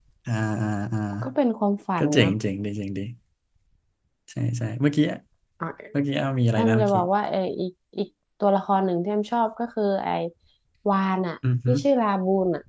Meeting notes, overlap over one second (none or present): none